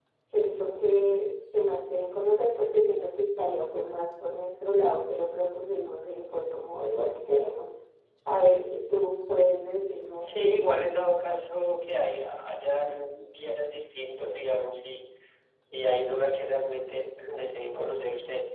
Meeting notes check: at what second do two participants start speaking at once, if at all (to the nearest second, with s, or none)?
none